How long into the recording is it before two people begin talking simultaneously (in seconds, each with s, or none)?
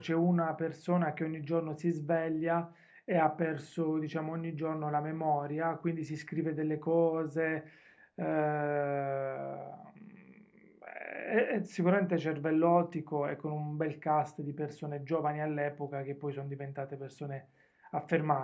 none